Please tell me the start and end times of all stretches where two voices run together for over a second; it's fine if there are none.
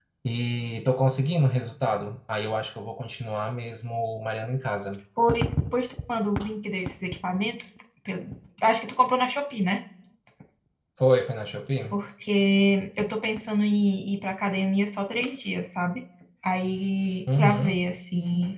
none

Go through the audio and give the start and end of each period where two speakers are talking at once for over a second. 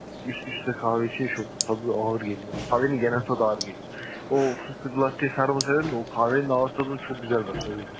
none

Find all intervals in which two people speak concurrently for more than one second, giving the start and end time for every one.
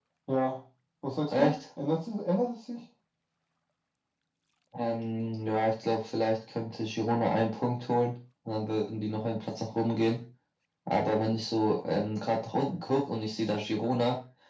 none

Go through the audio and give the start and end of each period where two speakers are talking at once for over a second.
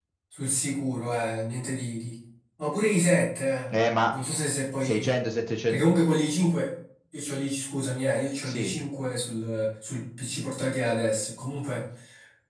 none

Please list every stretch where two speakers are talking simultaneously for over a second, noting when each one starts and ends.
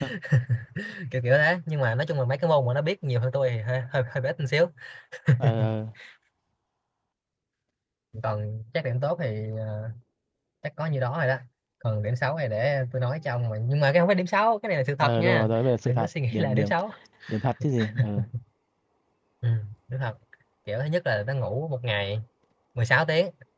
15.0-16.7

